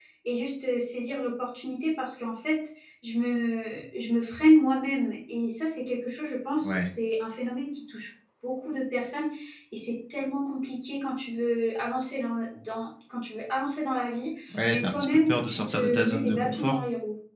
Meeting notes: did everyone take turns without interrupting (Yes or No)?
No